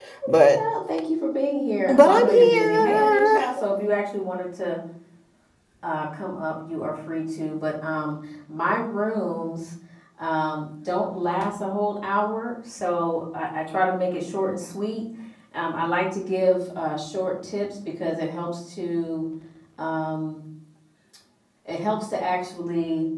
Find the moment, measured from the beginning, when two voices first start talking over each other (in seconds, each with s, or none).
1.9 s